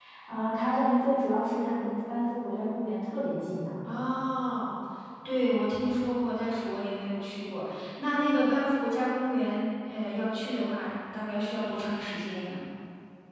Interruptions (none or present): none